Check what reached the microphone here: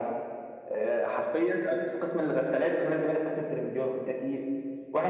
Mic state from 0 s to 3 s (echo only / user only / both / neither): echo only